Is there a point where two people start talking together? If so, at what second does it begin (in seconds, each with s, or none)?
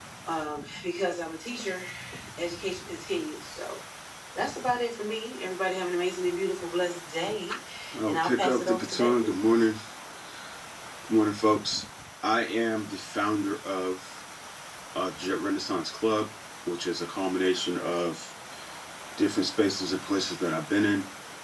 8.1 s